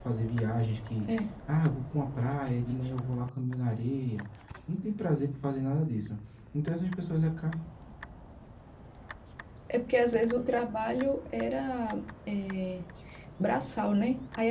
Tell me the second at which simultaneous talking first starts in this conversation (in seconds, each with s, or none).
none